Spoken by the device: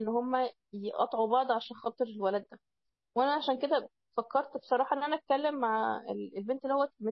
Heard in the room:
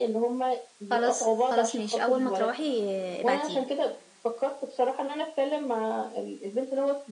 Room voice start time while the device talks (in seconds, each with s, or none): 0.9 s